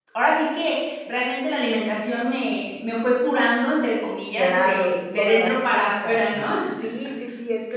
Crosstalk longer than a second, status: present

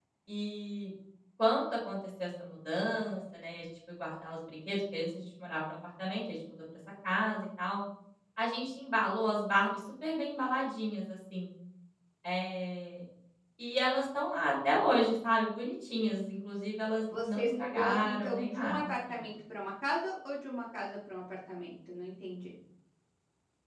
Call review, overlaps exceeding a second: present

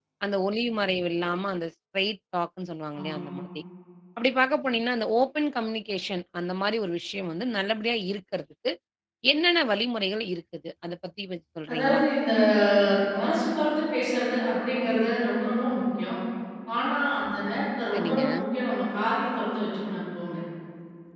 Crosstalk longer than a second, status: none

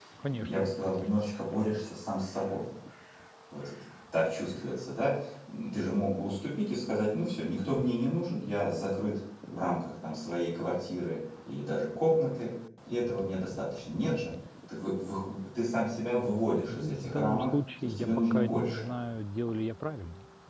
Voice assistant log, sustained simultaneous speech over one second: present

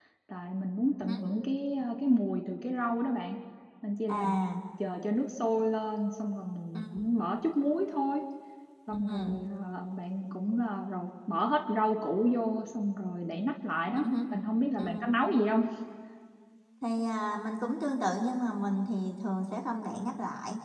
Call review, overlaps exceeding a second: none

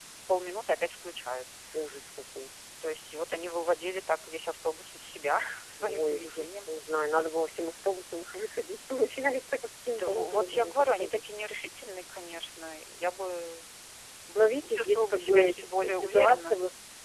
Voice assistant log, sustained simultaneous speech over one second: present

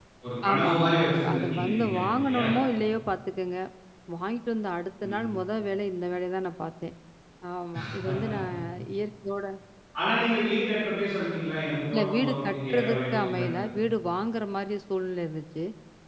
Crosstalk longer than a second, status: present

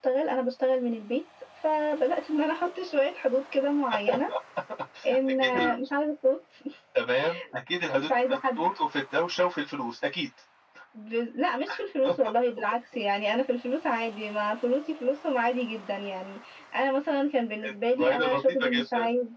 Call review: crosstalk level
present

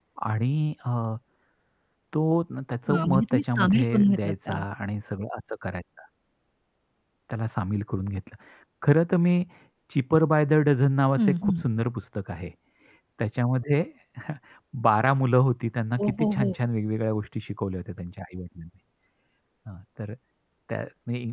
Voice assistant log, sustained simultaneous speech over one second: present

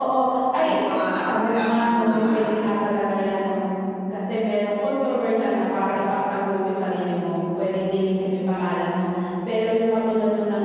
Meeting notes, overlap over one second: present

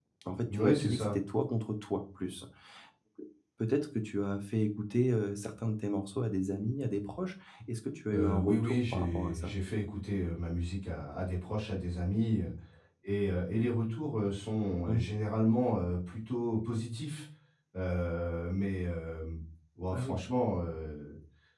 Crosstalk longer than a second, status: present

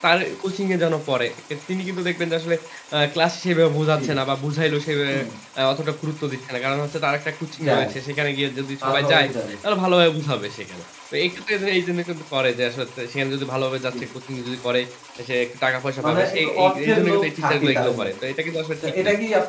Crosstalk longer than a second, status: present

